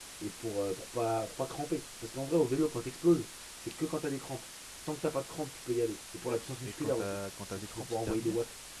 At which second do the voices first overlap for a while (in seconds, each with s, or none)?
6.6 s